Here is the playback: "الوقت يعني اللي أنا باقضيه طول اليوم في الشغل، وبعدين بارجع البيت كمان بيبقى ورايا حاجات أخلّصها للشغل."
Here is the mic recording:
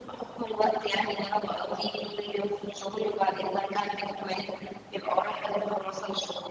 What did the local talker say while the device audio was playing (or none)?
none